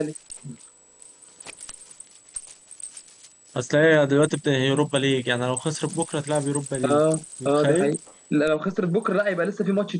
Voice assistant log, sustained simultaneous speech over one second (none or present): none